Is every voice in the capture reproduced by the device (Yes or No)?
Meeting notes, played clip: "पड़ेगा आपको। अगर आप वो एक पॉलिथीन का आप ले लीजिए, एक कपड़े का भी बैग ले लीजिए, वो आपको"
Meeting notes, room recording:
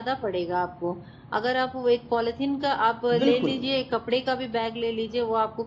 No